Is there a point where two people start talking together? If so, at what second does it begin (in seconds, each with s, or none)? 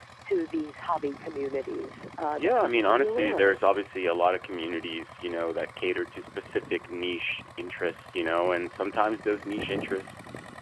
2.4 s